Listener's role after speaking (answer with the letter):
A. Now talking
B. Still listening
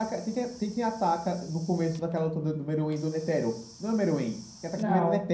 B